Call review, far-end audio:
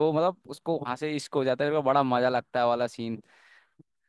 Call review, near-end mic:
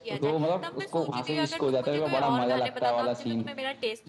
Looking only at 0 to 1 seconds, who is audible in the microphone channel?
both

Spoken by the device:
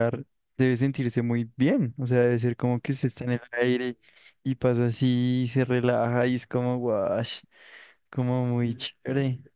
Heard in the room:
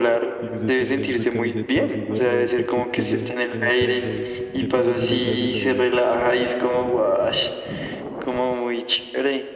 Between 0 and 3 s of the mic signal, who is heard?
both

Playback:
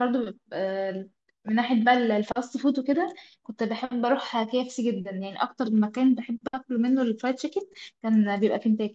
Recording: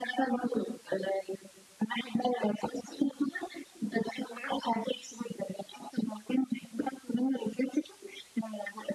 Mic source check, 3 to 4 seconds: echo only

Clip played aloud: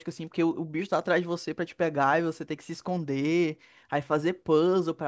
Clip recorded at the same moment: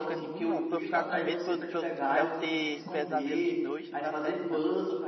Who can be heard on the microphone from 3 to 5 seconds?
both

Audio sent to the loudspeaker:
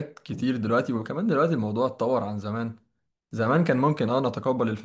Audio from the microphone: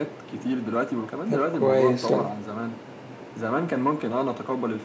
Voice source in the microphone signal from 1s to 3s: both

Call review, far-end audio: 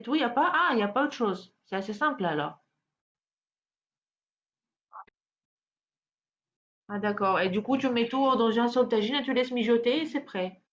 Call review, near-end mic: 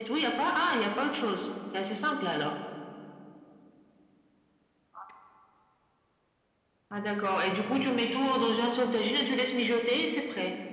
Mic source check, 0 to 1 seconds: echo only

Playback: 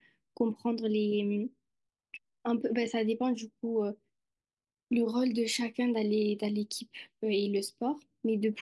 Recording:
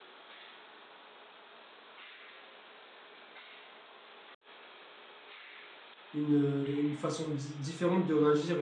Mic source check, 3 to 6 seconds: neither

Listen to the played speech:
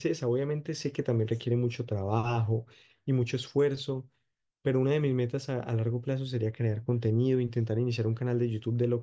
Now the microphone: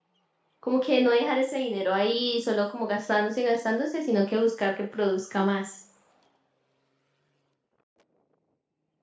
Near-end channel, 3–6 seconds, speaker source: user only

